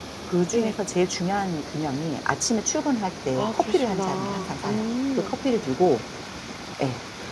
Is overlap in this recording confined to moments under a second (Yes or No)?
No